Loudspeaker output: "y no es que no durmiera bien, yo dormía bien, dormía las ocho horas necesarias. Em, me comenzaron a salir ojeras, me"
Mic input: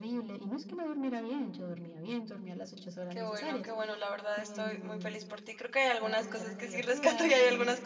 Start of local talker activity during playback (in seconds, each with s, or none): 3.1 s